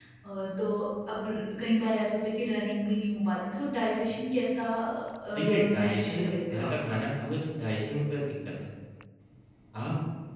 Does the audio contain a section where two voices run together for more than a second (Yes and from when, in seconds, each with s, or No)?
Yes, from 5.3 s